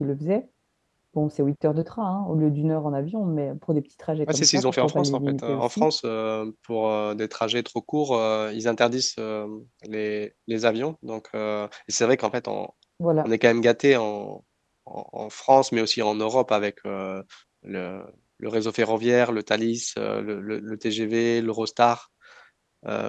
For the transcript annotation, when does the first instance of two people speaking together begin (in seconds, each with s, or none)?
4.3 s